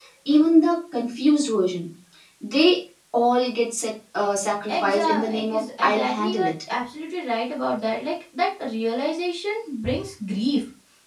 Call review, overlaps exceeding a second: present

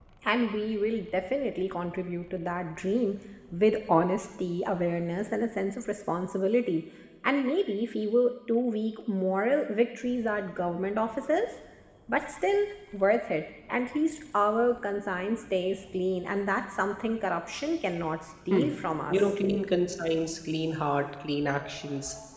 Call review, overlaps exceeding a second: none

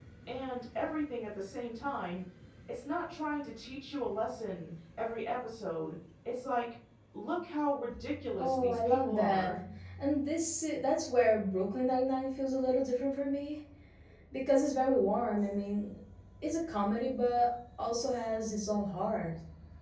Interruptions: present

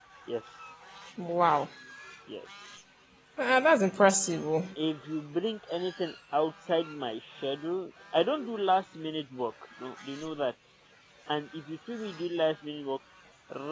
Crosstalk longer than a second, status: none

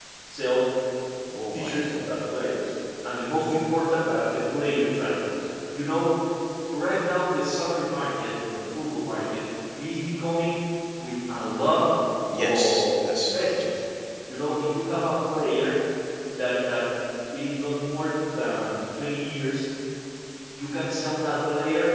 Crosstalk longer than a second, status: present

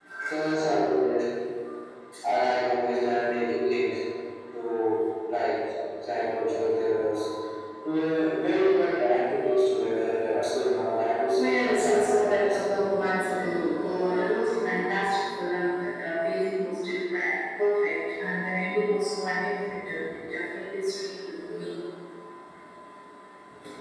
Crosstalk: present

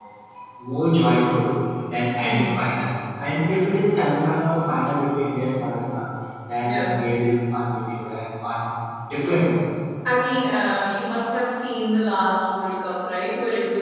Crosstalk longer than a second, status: none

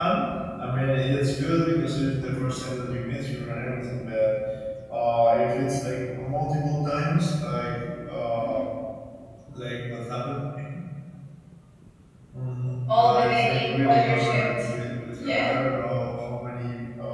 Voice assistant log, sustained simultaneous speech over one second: present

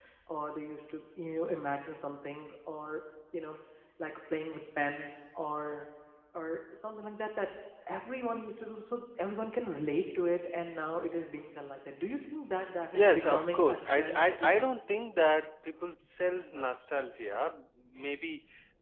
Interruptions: present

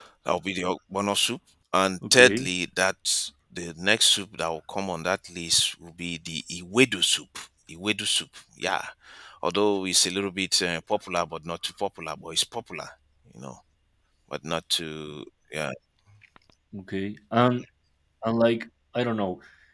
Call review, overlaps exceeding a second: none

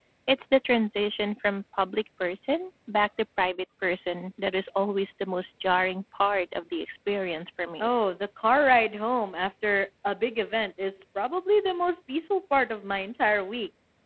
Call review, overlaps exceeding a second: none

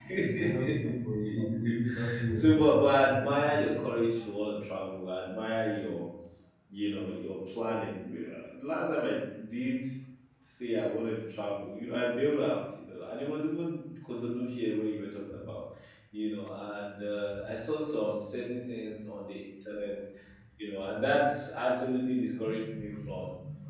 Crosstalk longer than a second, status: present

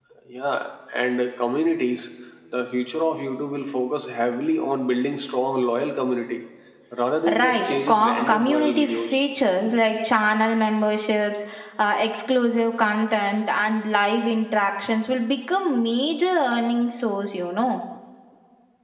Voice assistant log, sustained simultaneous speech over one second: present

